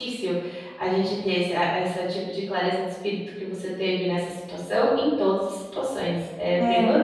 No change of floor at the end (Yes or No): Yes